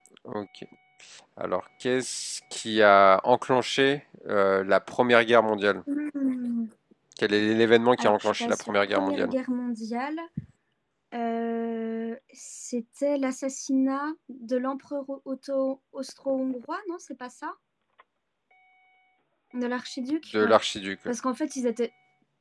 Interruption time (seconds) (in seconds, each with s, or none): 8.0 s